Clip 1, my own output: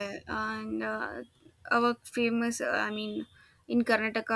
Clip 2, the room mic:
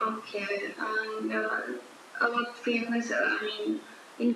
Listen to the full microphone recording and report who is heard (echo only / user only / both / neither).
echo only